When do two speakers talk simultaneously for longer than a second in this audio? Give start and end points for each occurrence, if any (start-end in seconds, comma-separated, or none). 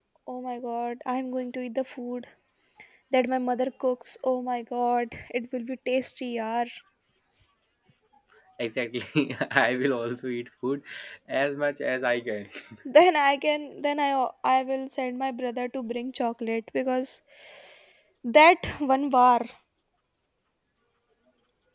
none